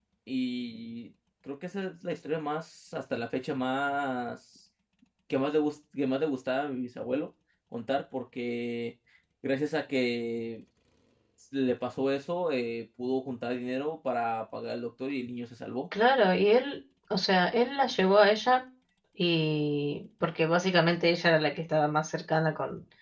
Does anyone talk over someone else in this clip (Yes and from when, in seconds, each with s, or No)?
No